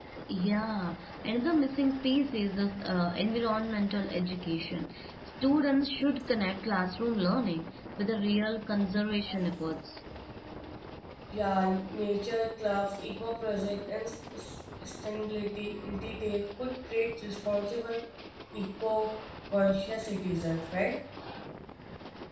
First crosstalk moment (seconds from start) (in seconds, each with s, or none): none